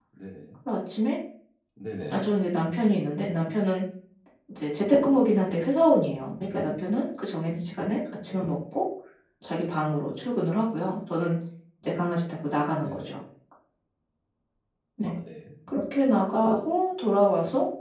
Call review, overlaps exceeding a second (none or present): none